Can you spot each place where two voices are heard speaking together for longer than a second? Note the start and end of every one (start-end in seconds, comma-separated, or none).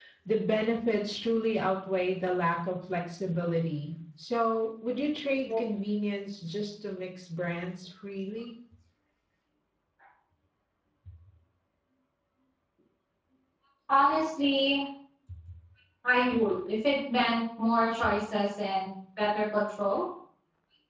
none